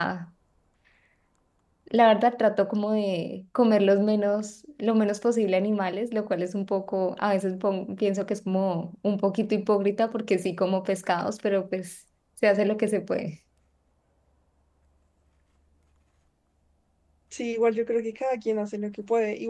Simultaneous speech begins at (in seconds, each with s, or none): none